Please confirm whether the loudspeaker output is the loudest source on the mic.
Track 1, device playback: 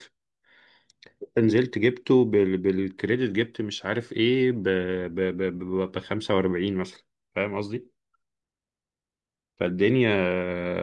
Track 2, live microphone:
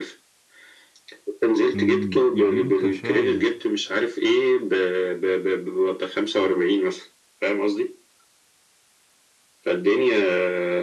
Yes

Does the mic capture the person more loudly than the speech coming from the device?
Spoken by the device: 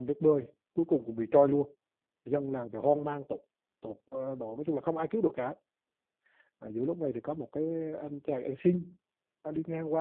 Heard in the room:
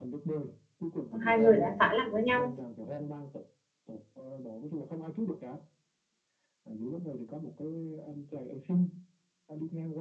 Yes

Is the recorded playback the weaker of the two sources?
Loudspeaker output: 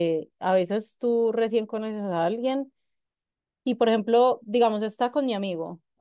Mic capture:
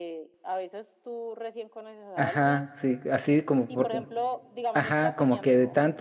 Yes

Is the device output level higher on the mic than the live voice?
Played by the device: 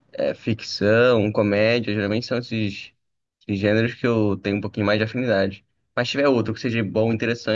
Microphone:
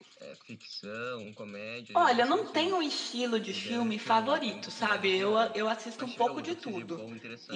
No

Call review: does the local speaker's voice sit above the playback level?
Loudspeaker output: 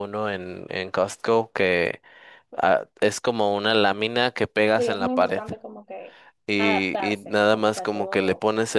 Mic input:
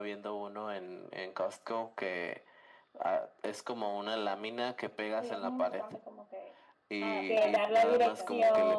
Yes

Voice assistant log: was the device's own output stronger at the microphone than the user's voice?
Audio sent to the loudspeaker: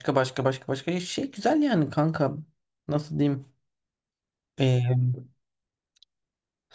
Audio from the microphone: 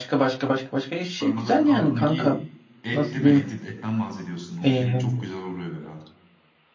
Yes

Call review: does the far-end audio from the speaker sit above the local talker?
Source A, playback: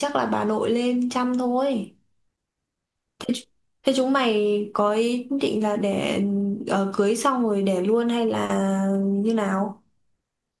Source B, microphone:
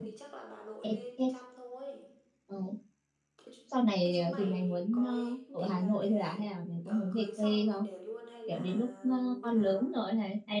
No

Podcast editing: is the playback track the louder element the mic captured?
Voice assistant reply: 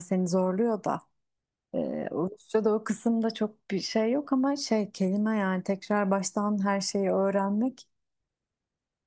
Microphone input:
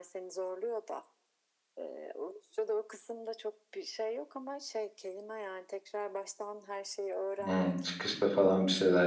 No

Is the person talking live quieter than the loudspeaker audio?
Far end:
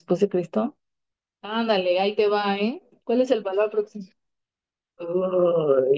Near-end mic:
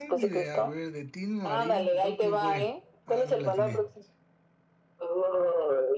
Yes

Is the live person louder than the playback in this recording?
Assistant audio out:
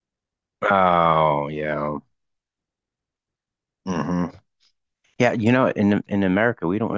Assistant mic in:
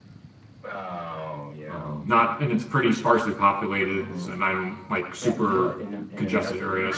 Yes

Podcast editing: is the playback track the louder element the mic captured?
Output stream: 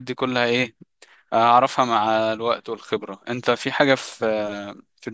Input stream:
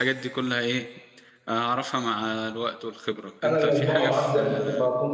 No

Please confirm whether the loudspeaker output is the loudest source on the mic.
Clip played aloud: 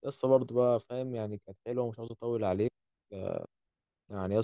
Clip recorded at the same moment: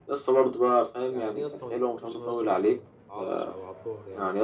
Yes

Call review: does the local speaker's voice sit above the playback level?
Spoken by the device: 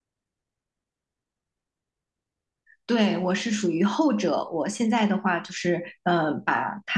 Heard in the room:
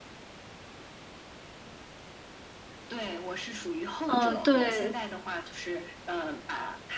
Yes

